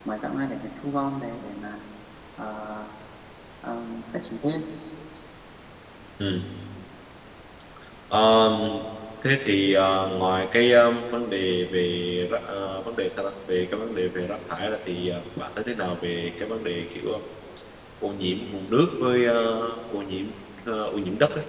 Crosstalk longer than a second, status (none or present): none